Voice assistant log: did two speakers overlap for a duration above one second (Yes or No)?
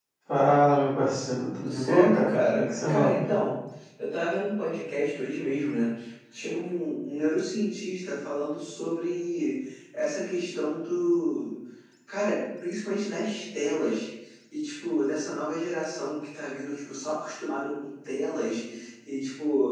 Yes